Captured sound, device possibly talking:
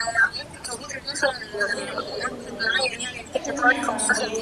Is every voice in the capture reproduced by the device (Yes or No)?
No